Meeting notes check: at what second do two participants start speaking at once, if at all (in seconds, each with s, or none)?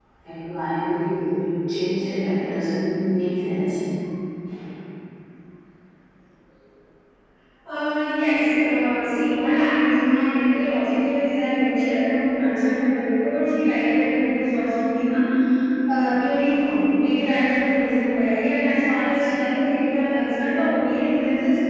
none